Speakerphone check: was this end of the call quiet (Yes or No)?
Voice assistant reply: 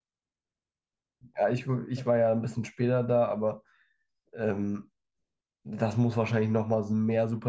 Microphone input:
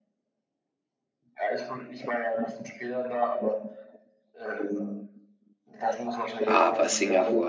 No